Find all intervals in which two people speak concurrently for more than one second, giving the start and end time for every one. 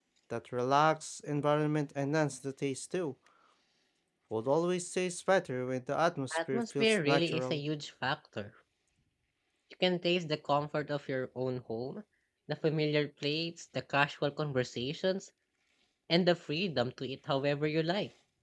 6.4-7.6

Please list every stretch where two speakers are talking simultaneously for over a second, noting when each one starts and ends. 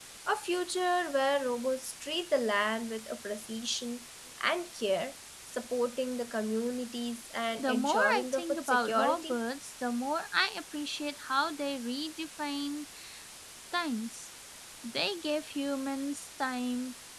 7.6-9.4

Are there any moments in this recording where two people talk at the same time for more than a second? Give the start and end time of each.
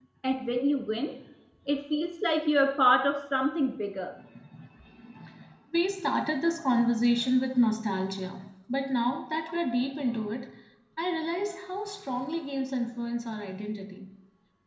none

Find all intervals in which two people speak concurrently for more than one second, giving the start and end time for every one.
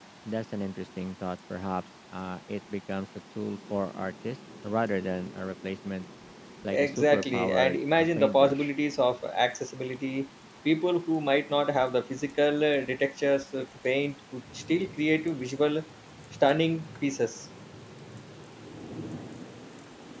6.7-8.7

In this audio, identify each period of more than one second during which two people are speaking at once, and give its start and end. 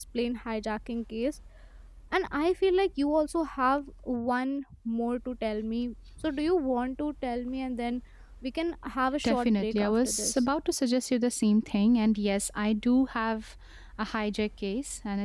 9.2-10.4

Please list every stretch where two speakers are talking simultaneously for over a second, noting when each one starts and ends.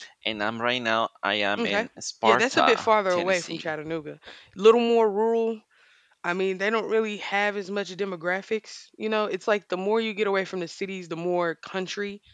2.2-3.6

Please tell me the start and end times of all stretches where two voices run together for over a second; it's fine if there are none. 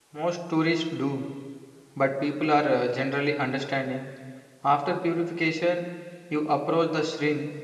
none

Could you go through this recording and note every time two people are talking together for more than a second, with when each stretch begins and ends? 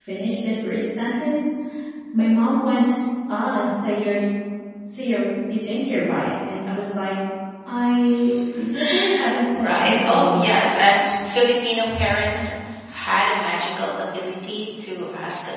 9.5-10.8

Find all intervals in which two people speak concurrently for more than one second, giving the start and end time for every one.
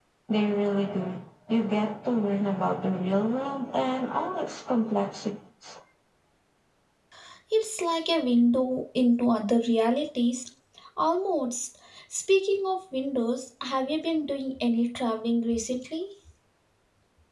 none

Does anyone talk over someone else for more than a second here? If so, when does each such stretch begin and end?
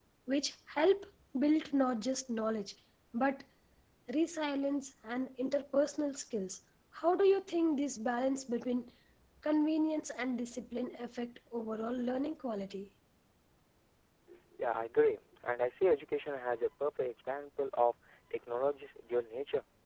none

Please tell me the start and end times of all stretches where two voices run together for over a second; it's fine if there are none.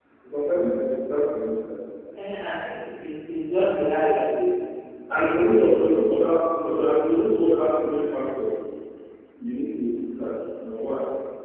none

